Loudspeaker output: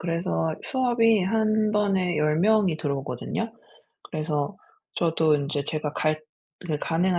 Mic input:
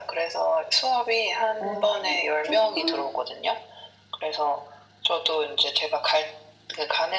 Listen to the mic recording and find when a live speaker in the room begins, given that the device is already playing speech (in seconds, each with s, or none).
1.6 s